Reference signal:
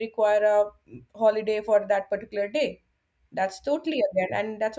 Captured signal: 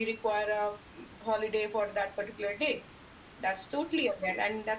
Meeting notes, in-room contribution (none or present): none